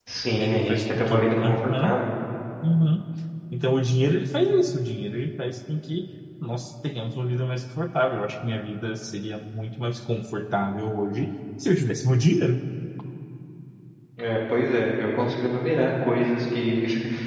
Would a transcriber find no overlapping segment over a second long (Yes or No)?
No